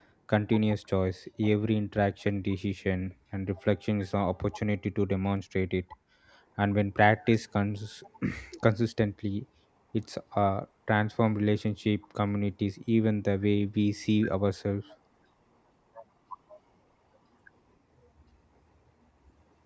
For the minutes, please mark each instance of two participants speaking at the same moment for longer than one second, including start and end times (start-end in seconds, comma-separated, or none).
none